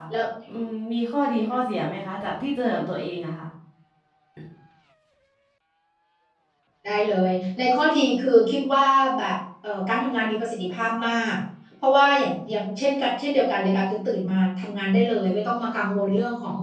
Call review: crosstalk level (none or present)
none